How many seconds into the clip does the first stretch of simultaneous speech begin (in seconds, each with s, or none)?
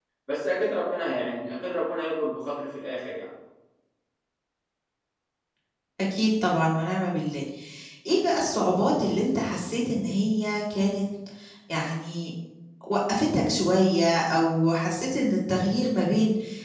none